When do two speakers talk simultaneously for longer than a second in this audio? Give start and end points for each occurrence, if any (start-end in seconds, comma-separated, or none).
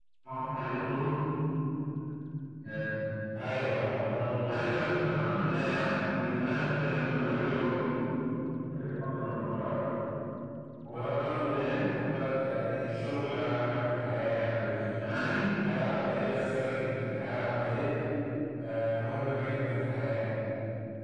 none